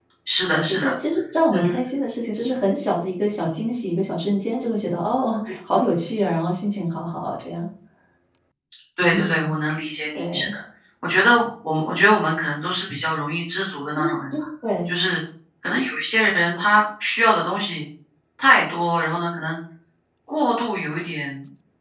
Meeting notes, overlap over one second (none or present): none